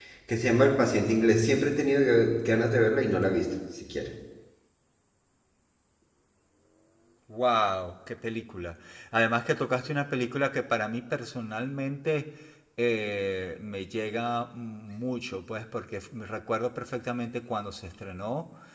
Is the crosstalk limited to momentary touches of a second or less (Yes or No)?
Yes